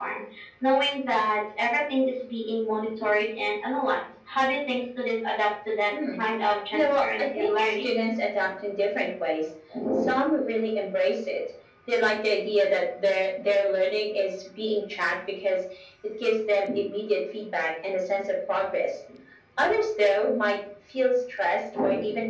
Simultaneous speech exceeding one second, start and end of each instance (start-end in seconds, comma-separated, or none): 6.7-8.0